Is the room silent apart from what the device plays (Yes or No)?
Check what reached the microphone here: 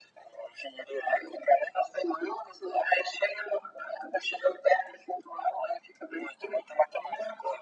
Yes